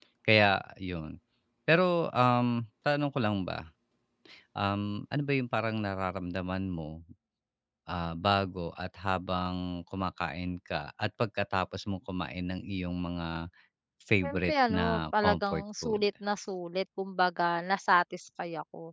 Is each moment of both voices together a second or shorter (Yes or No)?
No